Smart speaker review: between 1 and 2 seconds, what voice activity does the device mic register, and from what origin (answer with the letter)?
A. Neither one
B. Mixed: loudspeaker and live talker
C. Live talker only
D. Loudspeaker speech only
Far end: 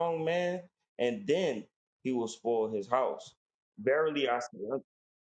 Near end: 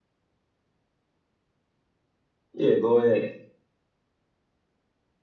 A